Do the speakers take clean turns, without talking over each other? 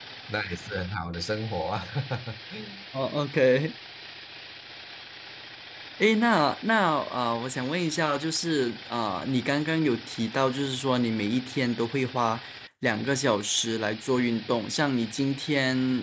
Yes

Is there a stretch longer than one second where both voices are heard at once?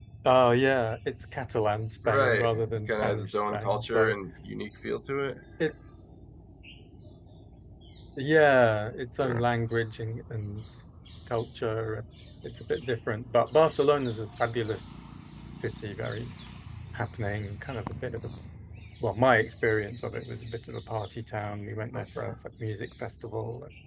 Yes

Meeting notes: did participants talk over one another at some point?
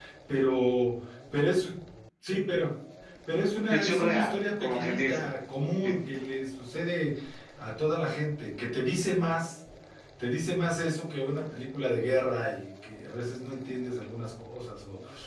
Yes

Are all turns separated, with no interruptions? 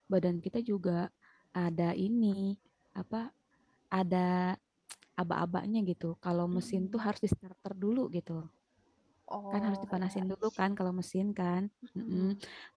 No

